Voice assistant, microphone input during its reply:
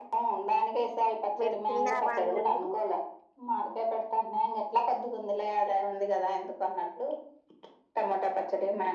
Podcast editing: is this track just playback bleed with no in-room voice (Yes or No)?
No